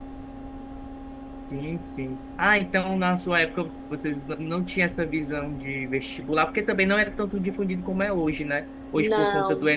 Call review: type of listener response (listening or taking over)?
listening